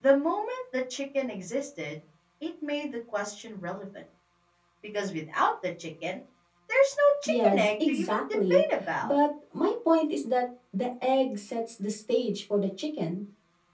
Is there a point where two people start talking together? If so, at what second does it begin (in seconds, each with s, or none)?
7.3 s